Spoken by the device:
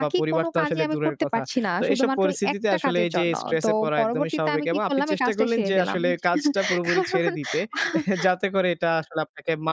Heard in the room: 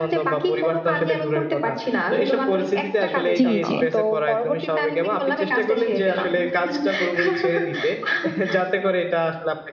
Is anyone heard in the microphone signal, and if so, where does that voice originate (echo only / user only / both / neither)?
both